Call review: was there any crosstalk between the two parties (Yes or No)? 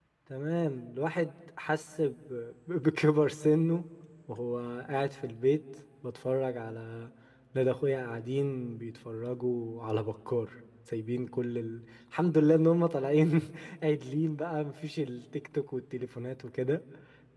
No